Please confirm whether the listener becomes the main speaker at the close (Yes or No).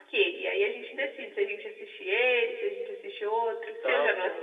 Yes